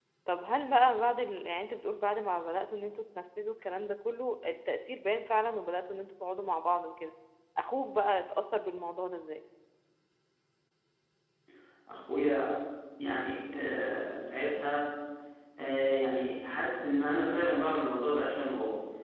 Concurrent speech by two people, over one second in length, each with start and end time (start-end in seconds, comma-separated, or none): none